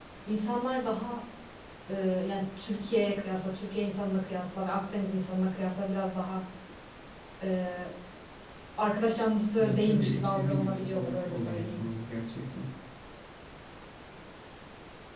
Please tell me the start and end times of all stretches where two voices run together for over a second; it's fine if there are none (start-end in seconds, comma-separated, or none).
9.6-11.8